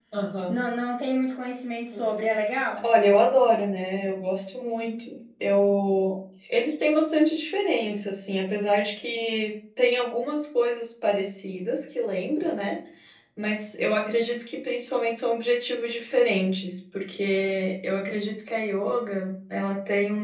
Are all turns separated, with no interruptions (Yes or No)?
Yes